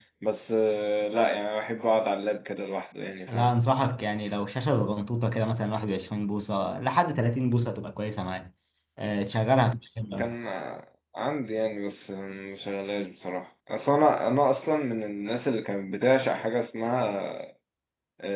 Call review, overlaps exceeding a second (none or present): none